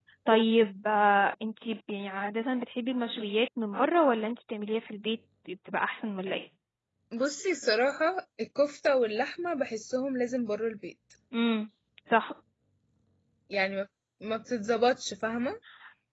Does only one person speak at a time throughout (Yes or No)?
Yes